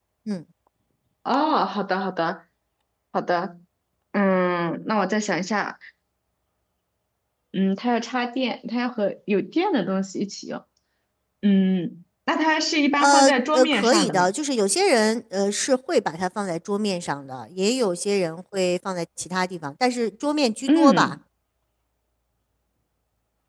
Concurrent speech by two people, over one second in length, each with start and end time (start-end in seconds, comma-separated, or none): 13.0-14.3